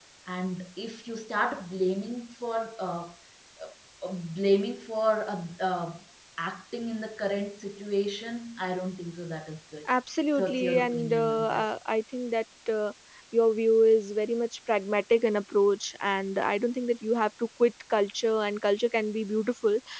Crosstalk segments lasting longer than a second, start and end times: 10.4-11.7

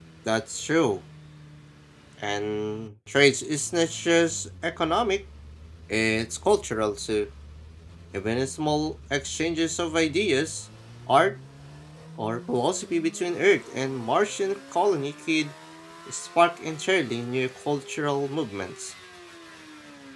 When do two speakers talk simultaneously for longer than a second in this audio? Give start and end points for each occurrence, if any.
none

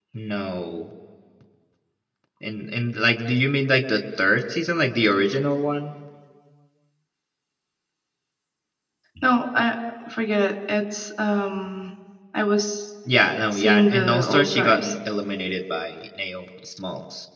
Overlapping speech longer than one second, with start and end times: 13.5-14.9

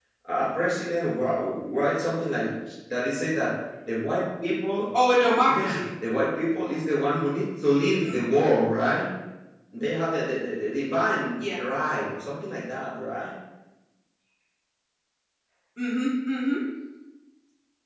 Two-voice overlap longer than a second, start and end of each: none

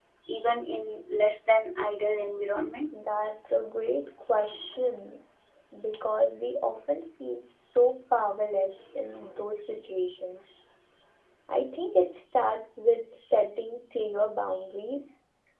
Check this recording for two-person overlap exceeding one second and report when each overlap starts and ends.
none

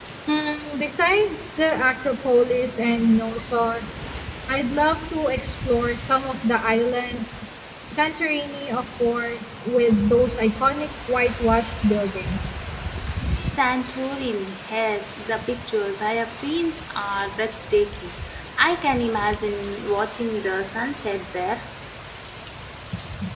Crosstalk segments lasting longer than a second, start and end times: none

